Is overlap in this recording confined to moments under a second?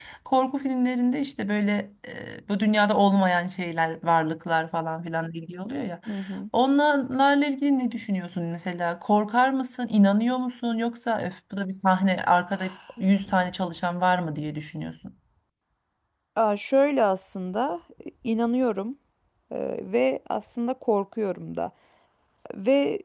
Yes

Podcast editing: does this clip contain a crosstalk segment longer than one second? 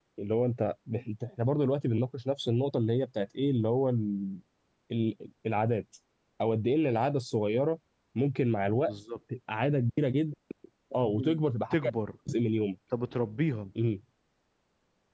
No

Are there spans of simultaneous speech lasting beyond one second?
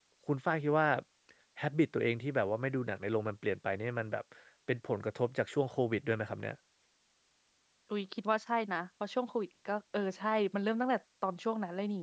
No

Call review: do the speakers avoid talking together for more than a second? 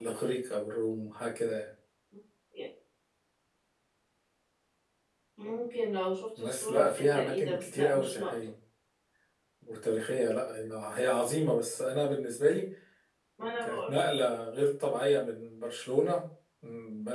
No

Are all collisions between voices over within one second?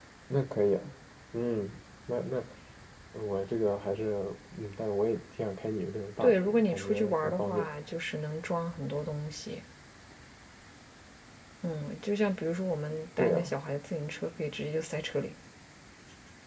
No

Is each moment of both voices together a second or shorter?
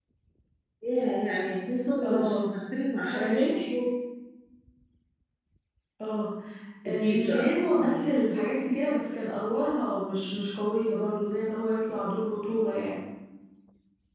No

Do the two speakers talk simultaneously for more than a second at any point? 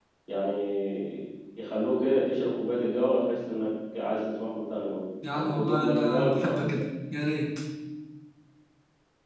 Yes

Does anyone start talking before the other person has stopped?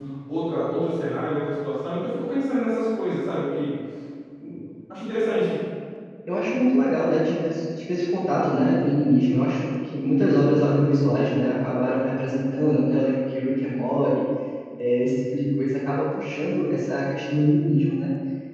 No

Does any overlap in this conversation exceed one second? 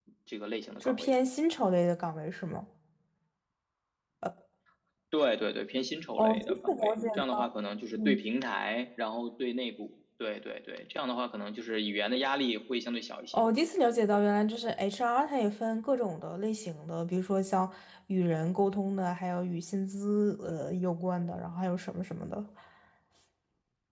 Yes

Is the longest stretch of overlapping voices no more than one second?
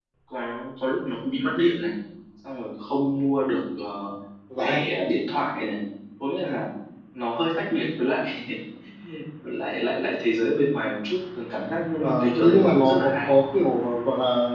No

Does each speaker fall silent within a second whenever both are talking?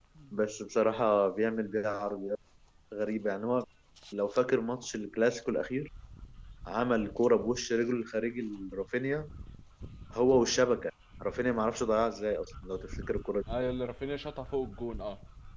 Yes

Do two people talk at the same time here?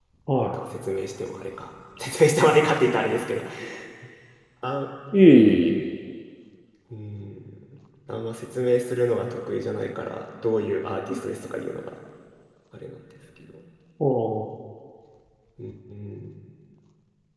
No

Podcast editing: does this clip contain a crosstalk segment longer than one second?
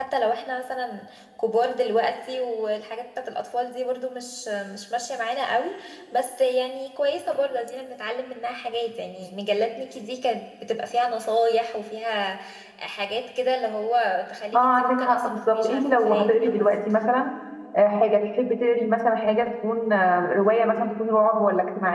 Yes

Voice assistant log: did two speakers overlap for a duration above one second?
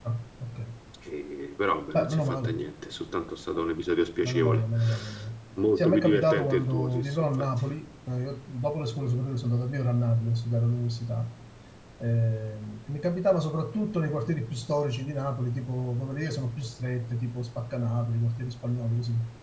Yes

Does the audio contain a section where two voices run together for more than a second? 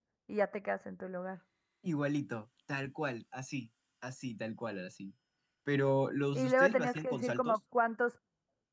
Yes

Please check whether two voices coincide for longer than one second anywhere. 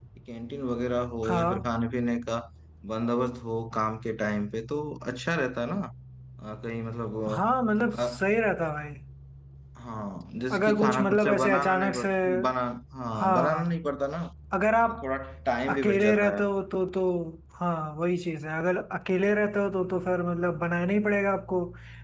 Yes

